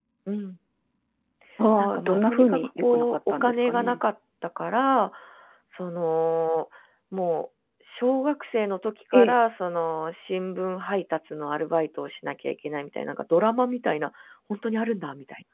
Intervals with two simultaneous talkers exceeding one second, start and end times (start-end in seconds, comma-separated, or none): 1.8-4.0